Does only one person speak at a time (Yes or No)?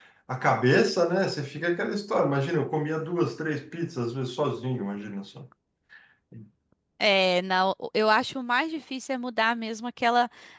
Yes